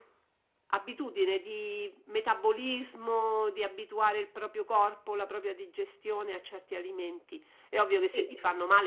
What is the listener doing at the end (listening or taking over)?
listening